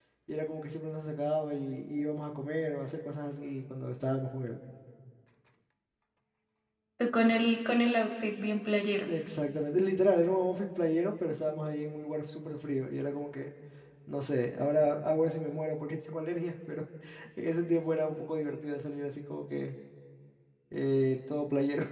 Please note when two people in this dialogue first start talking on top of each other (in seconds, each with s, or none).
none